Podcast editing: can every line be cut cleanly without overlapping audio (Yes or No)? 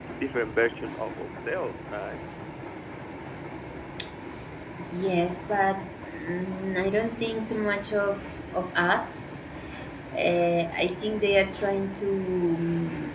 Yes